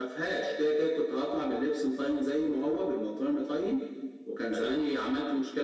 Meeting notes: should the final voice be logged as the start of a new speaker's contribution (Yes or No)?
No